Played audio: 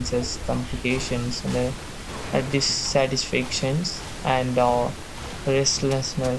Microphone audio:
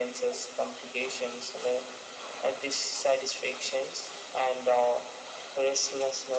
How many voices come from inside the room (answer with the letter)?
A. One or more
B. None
B